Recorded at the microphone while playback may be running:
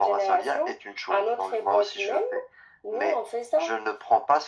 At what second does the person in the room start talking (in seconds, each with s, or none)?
none